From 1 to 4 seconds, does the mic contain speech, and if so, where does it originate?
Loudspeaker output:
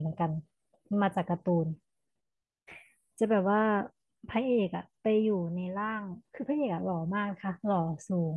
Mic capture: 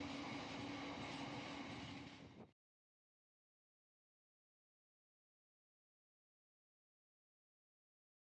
neither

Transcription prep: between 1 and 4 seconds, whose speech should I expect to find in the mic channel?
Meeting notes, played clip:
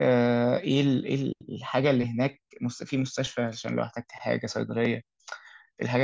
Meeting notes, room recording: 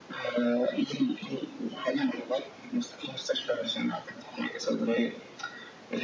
echo only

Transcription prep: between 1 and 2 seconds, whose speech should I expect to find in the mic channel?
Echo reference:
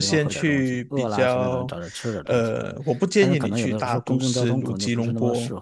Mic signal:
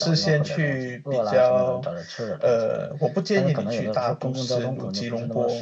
echo only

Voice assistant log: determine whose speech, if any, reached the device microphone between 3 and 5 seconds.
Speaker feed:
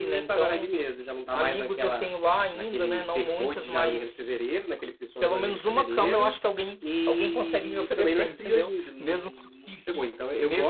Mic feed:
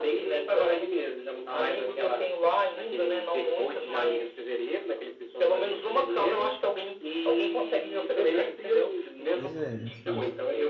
echo only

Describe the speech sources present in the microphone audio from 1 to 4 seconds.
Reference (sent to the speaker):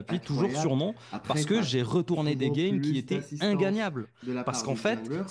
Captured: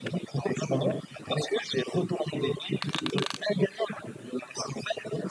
echo only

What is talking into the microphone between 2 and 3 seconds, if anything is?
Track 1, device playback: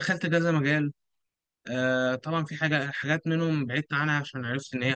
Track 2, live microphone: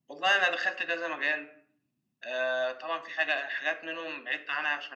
echo only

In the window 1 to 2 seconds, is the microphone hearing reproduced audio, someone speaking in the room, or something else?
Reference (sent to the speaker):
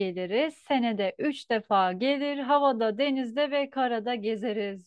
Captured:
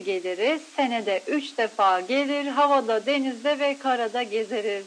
echo only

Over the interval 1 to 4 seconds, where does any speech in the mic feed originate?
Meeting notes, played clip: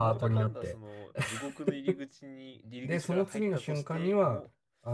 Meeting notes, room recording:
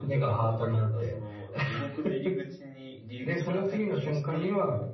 echo only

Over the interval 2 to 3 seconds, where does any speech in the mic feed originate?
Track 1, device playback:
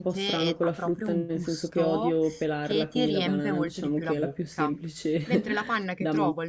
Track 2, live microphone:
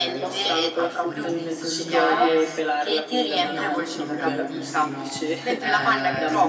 both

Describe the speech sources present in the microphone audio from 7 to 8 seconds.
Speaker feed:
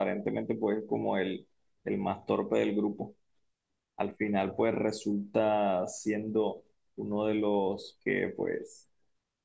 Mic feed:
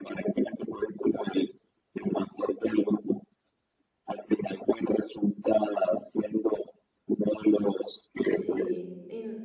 echo only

